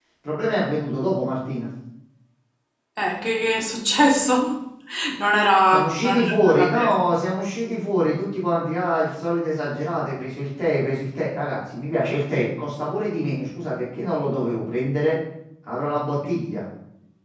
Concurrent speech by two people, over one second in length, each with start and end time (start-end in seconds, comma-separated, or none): 5.7-6.9